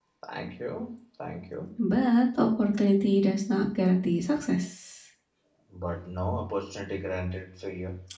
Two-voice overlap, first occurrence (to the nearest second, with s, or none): none